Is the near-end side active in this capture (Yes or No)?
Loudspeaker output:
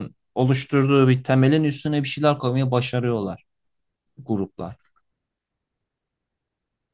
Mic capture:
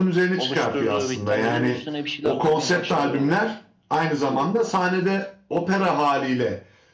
Yes